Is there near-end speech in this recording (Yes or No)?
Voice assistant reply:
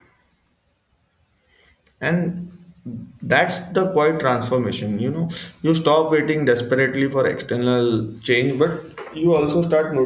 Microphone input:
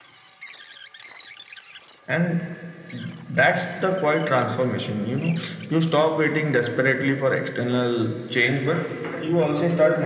Yes